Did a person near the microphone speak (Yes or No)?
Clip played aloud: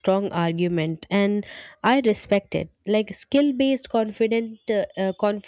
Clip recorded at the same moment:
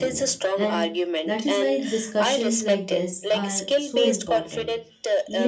Yes